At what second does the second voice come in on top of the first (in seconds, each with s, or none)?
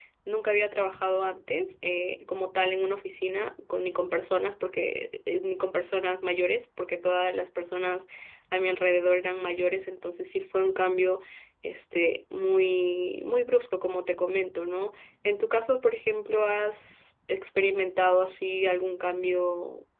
none